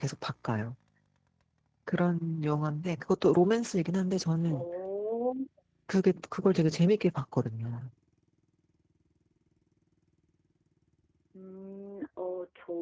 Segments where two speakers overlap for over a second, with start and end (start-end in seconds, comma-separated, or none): none